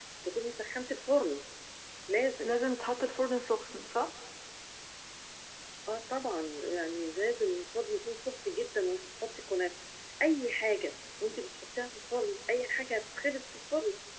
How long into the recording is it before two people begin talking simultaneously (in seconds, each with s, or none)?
none